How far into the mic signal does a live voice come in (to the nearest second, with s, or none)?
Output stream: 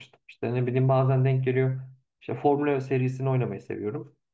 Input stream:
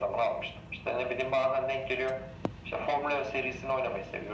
none